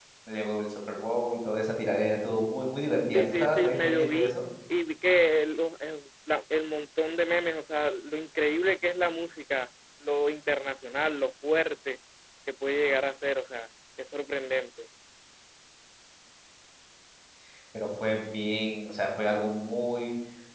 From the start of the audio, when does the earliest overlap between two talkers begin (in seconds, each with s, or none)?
3.1 s